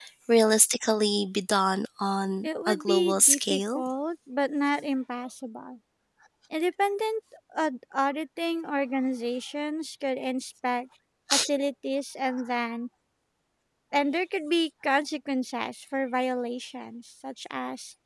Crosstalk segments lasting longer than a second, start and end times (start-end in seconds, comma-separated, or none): 2.4-3.8